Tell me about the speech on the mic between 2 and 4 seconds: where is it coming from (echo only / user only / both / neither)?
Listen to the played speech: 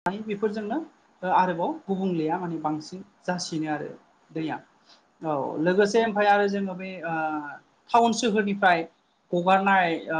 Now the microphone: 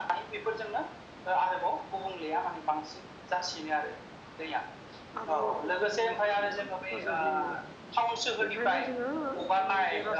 echo only